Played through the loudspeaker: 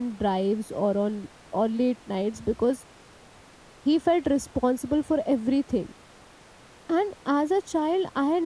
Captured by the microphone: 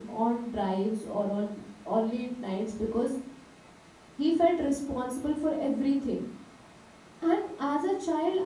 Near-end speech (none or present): none